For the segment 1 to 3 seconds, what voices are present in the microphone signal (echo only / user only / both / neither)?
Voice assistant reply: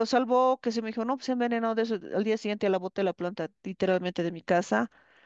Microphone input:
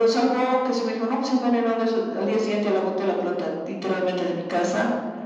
echo only